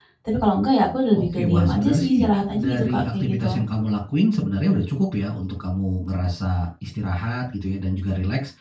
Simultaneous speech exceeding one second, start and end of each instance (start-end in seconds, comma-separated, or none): 1.1-3.6